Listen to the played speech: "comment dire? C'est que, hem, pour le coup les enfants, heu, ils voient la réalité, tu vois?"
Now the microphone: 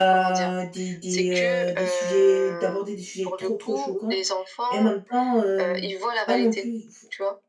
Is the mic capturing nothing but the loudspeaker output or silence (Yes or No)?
No